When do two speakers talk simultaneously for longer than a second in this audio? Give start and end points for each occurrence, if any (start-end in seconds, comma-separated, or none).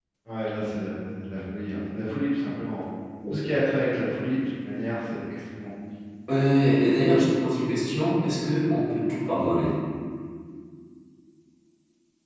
none